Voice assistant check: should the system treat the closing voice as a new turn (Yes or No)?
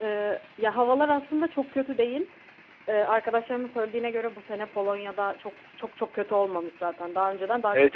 Yes